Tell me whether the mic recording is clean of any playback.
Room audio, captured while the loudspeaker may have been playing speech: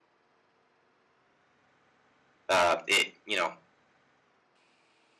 Yes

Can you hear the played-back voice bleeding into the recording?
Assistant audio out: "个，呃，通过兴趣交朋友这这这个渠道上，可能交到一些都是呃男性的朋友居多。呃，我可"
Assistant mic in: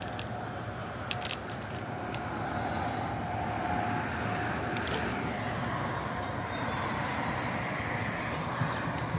No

